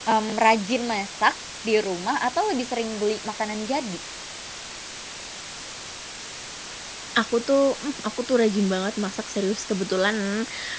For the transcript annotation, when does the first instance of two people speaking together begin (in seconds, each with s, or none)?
none